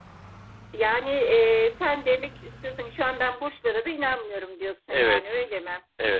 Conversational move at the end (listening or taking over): taking over